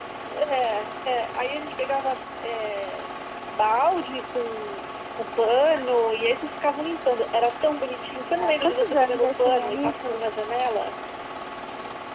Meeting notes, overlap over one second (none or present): present